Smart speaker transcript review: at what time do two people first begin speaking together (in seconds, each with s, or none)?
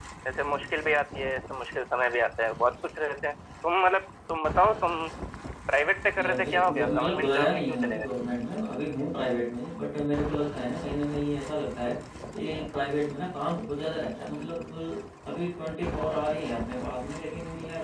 6.2 s